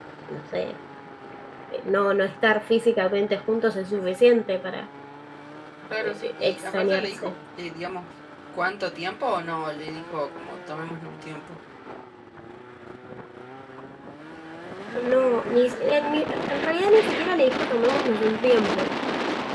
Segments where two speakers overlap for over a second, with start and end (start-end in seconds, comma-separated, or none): 6.0-7.3